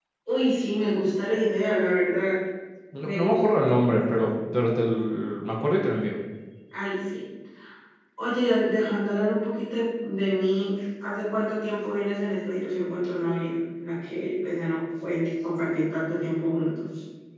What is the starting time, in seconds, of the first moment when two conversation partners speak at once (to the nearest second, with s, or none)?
3 s